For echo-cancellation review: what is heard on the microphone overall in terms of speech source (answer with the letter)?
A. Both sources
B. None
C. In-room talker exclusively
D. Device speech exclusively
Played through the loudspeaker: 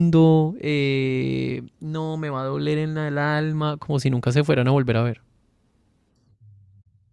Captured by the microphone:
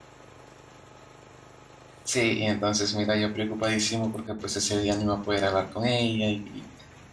C